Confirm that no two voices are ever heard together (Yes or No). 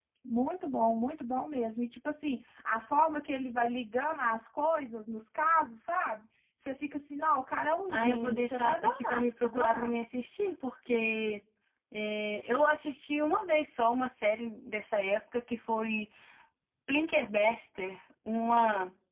No